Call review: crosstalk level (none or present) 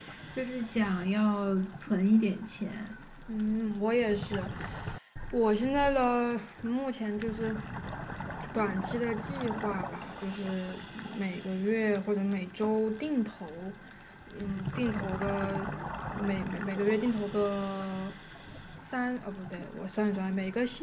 none